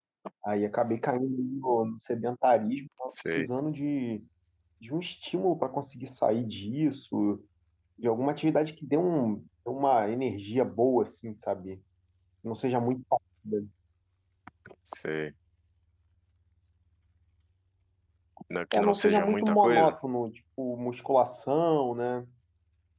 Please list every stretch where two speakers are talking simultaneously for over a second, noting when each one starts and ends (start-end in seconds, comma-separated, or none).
18.7-20.0